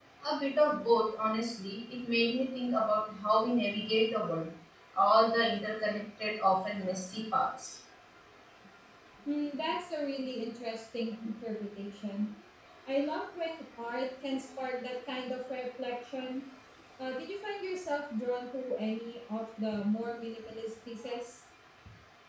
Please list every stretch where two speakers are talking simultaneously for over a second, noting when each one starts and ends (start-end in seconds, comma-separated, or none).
none